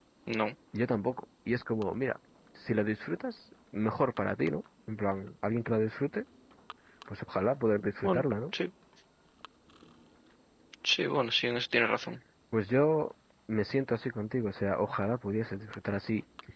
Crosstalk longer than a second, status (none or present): none